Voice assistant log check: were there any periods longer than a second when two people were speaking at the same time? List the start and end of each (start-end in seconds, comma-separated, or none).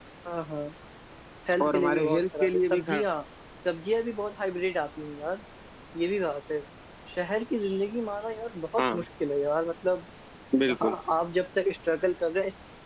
1.6-3.0